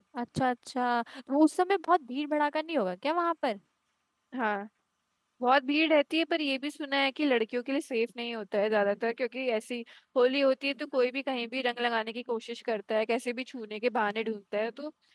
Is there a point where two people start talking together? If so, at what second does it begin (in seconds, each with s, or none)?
none